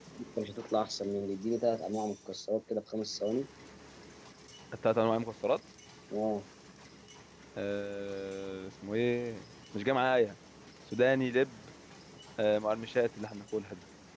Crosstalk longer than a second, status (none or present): none